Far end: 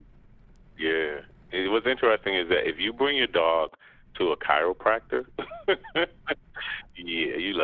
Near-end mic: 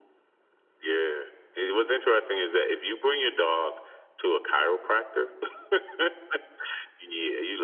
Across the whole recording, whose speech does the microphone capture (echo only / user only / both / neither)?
echo only